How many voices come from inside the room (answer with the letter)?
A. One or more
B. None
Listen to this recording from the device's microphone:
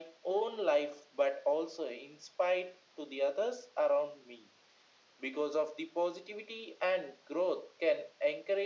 B